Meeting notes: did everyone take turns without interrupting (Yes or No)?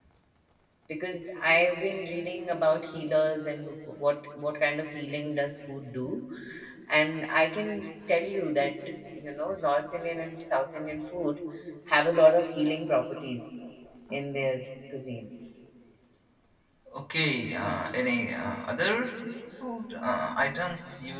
Yes